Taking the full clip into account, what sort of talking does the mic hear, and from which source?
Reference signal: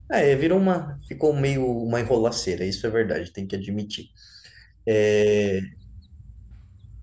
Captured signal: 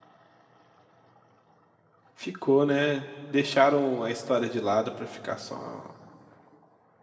user only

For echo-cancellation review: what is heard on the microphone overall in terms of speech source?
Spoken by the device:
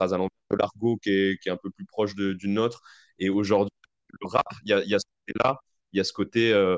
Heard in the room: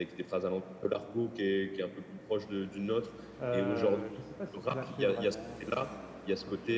both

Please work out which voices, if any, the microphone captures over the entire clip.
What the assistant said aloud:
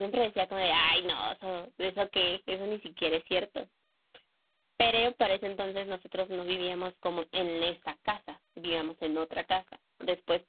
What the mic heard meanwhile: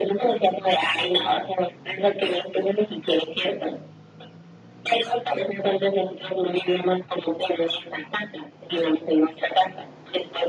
echo only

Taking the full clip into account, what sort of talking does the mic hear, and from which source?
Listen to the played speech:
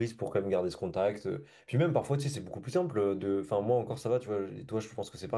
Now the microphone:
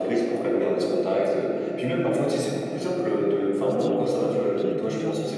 both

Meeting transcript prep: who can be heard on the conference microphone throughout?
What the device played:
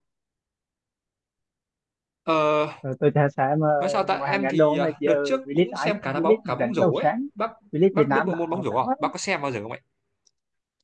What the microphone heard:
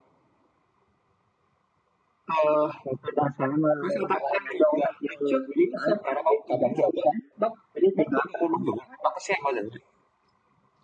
both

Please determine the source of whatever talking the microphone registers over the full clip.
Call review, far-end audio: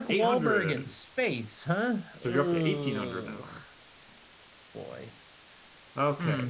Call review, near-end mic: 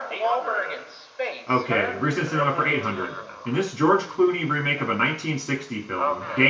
both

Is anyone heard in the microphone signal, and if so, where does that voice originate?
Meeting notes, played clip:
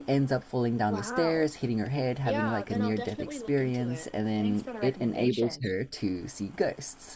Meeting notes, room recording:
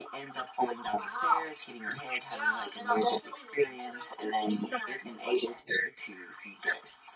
echo only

